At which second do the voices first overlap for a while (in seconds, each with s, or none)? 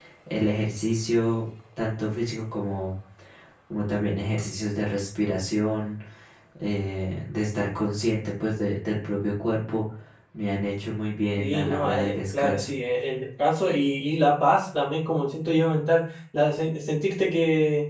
11.4 s